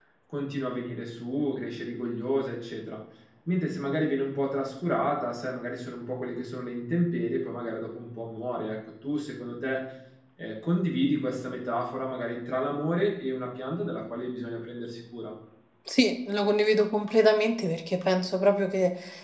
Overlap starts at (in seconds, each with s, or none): none